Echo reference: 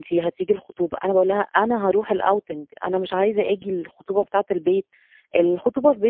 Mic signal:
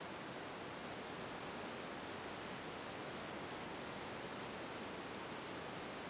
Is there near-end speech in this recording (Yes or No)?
No